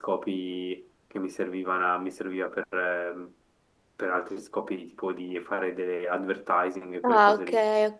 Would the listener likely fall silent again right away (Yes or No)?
No